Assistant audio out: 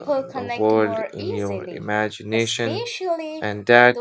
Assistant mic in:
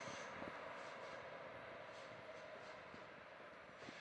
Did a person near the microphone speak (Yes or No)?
No